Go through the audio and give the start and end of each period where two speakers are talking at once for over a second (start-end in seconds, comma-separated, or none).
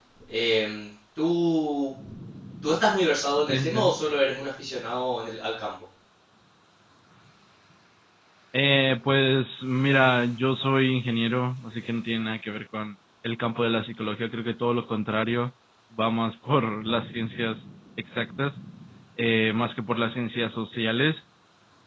none